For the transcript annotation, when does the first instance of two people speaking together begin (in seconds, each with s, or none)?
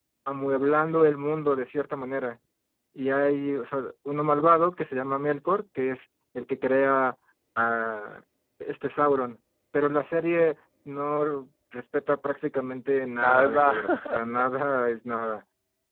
13.2 s